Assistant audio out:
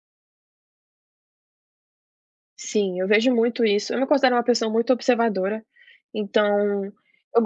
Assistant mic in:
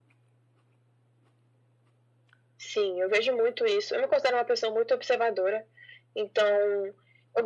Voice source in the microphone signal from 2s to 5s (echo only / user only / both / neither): echo only